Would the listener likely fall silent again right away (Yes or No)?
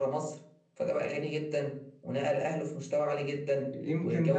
No